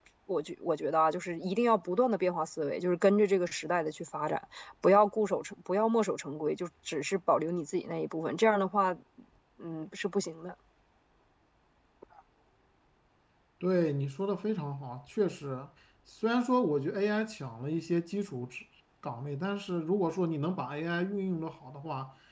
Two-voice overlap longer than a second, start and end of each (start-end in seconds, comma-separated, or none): none